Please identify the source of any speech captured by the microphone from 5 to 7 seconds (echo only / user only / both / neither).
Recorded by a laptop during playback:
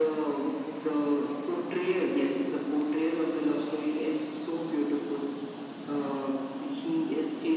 echo only